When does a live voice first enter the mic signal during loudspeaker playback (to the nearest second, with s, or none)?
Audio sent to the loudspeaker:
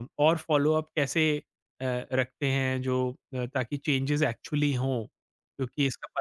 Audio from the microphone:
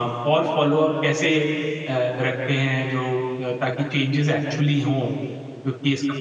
none